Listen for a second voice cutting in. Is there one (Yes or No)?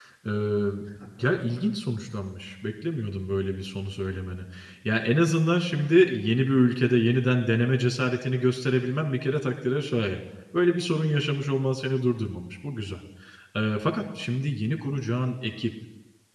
No